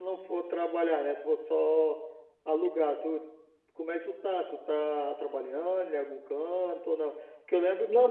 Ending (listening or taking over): listening